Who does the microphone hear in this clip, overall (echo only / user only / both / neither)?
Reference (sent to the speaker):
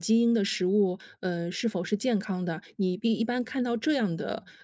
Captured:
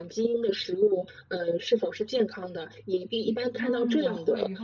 both